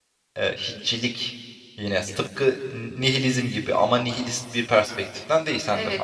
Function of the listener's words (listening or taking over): taking over